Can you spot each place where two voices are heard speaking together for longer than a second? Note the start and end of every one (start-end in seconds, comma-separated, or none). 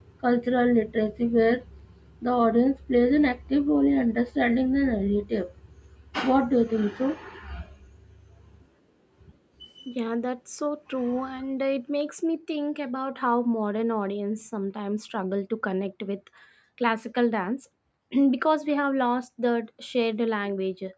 none